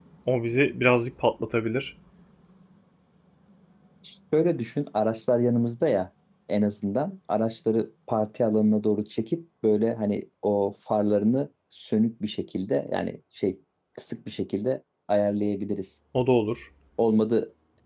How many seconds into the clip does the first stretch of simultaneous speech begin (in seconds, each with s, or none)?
none